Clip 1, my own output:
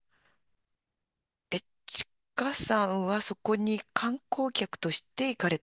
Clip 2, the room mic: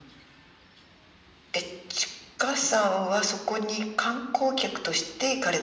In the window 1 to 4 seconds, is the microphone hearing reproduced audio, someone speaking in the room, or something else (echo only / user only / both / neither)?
echo only